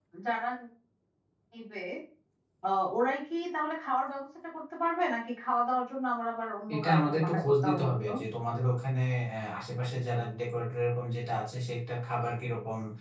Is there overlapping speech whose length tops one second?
Yes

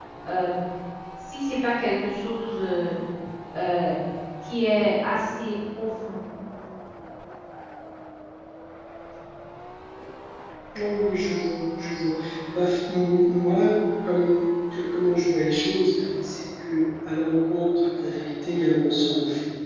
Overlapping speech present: No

